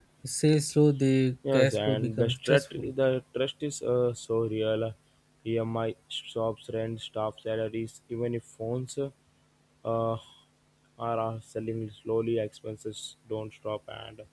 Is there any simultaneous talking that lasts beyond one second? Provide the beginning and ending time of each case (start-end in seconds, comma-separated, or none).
1.5-2.9